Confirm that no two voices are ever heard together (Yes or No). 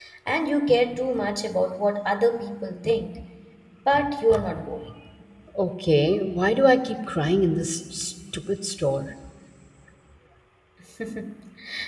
Yes